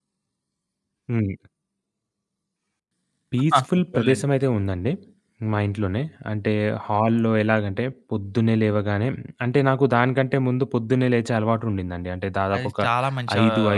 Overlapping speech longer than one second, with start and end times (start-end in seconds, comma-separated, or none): none